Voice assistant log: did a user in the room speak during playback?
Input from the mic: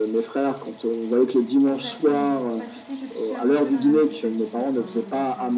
Yes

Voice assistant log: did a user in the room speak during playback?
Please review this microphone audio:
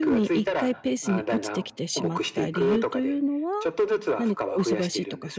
Yes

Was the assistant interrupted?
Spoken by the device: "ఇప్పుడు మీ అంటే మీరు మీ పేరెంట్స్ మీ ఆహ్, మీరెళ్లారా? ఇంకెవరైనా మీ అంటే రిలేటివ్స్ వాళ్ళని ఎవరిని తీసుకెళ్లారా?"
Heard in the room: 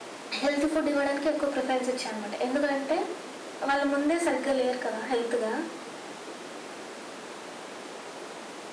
Yes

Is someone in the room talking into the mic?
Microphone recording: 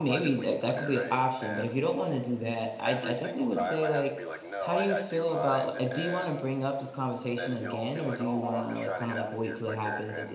Yes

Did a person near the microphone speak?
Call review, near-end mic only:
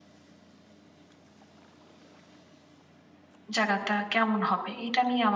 Yes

